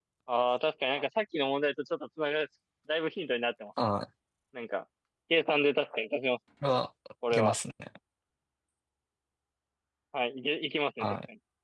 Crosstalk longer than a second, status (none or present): none